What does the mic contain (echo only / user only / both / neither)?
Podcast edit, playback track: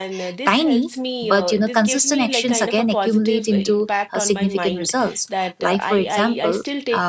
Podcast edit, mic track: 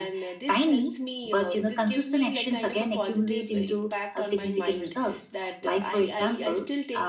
echo only